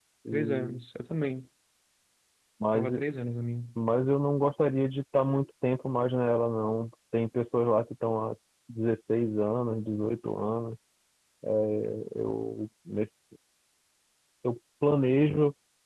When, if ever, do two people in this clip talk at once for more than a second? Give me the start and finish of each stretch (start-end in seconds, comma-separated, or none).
none